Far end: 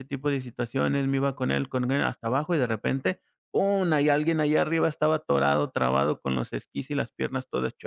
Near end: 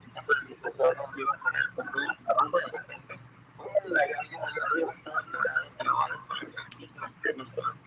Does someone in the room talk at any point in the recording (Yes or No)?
No